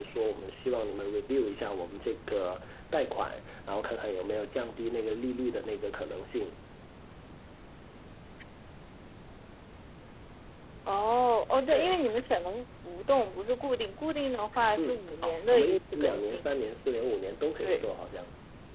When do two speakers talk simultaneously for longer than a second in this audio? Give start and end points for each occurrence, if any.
14.8-16.5

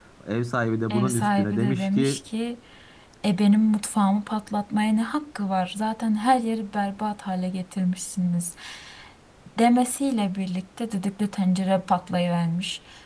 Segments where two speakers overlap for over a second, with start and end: 0.9-2.2

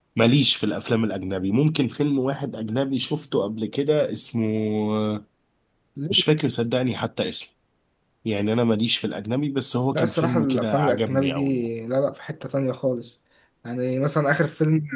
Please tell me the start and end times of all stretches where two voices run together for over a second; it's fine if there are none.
9.9-11.6

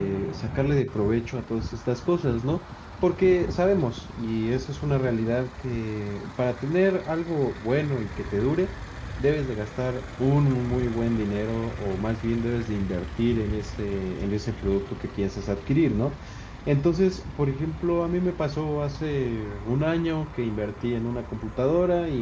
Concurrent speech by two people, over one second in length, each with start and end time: none

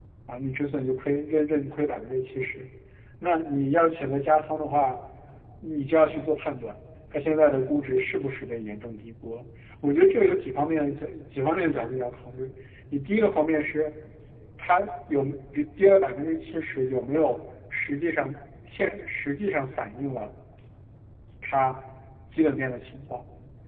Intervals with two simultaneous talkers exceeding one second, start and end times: none

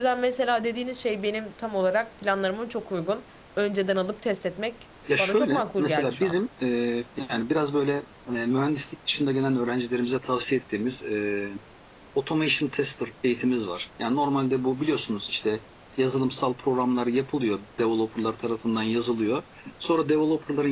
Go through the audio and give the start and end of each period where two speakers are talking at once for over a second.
5.2-6.4

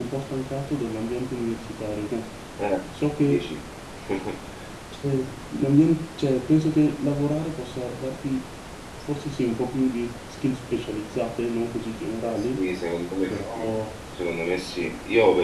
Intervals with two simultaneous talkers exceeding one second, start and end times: none

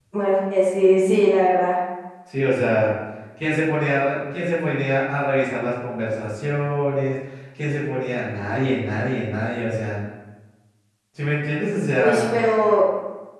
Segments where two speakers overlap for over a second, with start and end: none

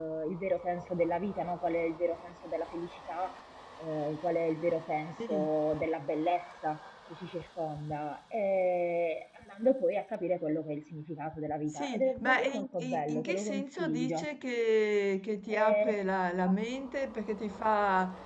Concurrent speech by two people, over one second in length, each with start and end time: 11.7-14.2

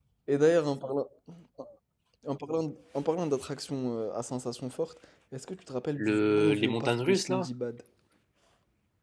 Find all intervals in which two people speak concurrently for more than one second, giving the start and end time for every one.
6.0-7.5

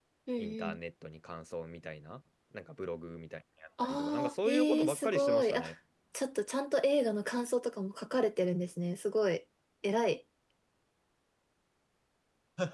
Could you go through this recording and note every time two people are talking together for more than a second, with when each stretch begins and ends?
3.8-5.6

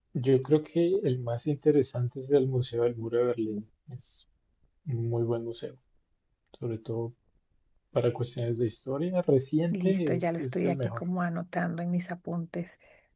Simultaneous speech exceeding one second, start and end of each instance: 9.7-11.0

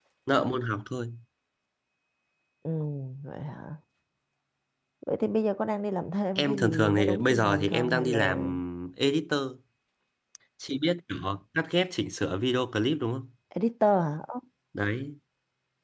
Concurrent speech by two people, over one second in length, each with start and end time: 6.3-8.5

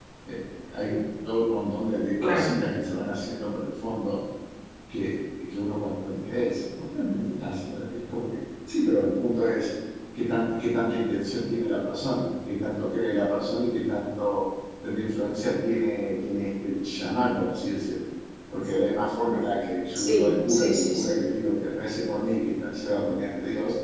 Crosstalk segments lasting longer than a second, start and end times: 19.9-21.2

